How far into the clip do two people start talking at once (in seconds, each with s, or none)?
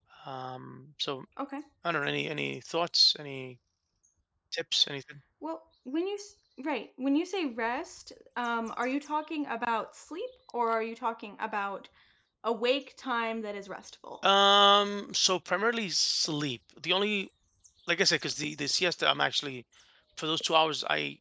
none